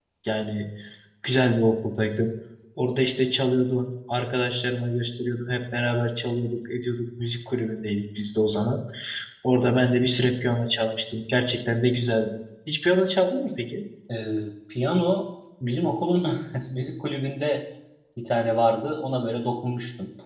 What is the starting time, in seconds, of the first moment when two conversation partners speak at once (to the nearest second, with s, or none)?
none